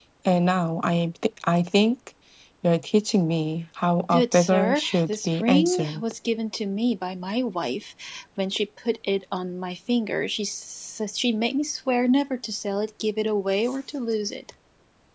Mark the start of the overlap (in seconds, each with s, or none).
4.1 s